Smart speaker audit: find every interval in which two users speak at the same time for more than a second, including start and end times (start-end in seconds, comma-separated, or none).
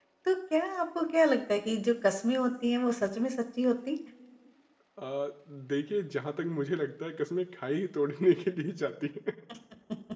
none